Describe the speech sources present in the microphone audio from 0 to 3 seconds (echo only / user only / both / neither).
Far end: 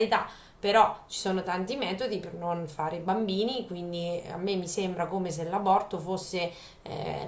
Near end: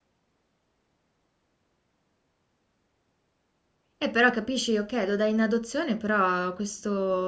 neither